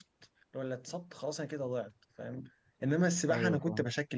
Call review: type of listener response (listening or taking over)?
listening